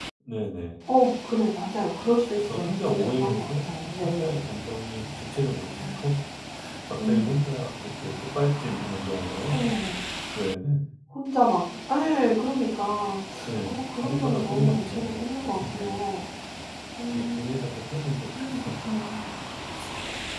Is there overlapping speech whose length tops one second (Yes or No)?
Yes